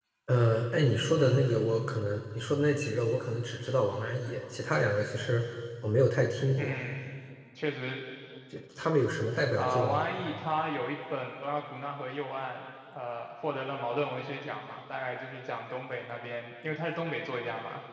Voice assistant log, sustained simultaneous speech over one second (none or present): none